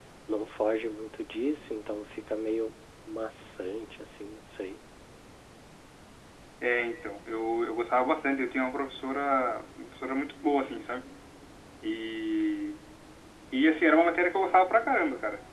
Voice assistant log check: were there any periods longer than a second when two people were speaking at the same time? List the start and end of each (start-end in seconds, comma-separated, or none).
none